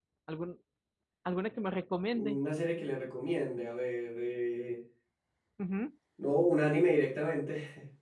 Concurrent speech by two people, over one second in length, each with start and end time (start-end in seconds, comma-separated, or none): none